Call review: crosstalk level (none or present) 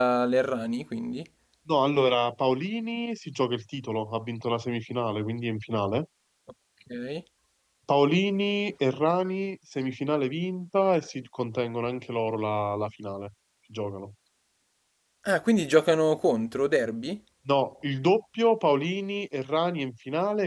none